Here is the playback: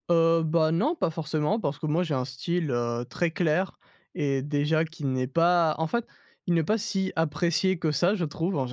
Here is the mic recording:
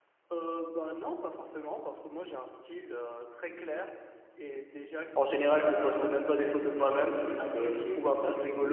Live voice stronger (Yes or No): Yes